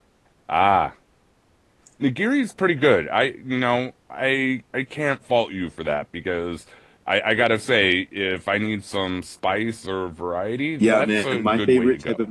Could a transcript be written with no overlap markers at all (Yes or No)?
No